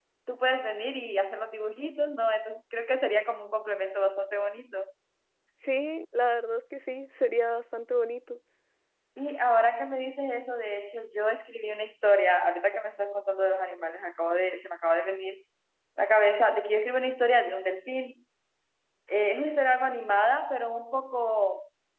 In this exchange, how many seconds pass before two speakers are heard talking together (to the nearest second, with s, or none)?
none